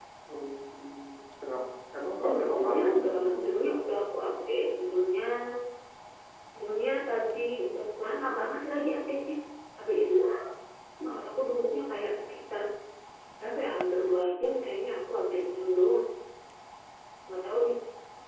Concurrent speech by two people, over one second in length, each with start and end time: 2.2-3.5

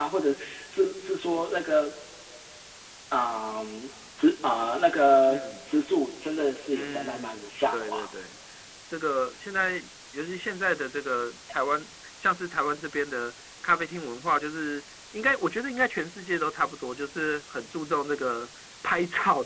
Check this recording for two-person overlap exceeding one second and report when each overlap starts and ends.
6.7-8.0

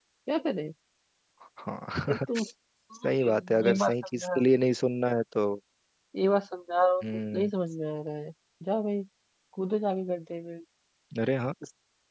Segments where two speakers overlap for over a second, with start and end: 3.0-4.4

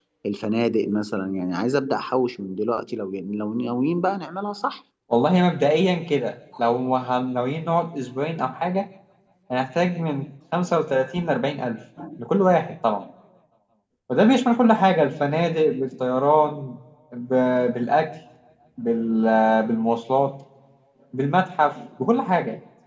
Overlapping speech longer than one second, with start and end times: none

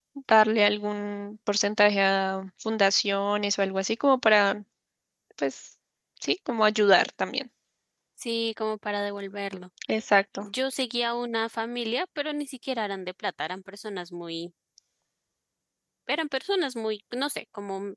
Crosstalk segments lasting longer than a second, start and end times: none

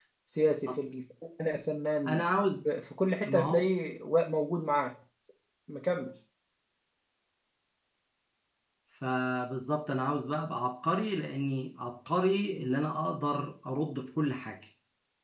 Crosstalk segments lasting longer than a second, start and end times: none

